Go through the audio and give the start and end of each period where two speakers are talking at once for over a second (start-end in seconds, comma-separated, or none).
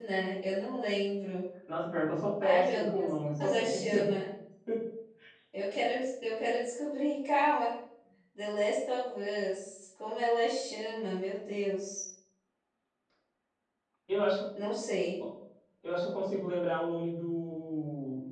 2.4-4.1